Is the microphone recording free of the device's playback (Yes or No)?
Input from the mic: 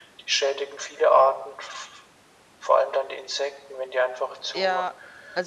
No